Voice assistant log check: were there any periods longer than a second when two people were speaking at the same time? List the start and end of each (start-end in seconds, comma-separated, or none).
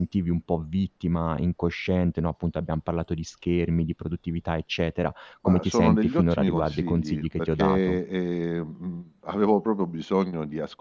5.4-8.0